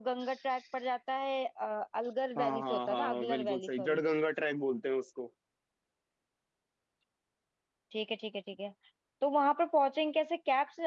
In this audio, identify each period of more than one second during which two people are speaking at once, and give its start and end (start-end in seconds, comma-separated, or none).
2.4-4.0